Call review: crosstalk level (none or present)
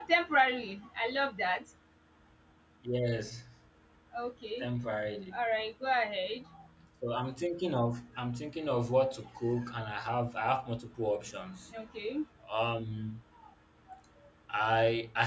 none